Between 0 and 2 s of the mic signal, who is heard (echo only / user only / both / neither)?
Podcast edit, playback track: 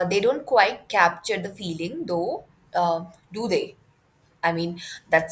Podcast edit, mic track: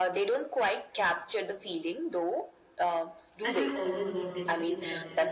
echo only